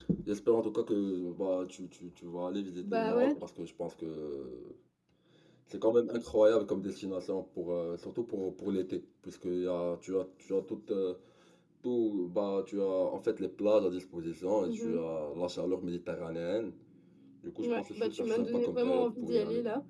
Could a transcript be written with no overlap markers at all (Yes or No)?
No